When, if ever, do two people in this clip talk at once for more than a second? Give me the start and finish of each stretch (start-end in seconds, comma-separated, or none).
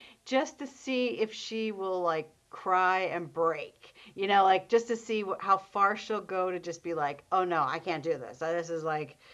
none